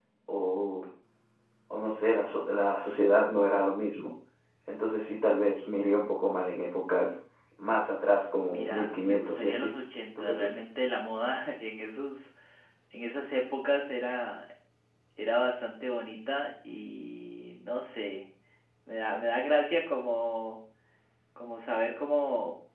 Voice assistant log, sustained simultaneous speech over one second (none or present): present